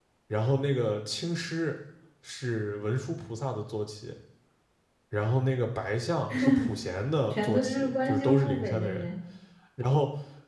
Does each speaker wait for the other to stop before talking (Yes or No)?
No